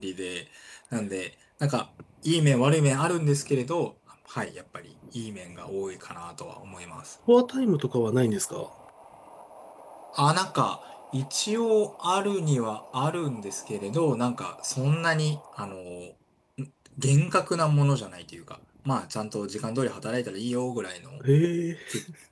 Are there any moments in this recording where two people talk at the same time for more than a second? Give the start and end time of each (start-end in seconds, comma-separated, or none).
none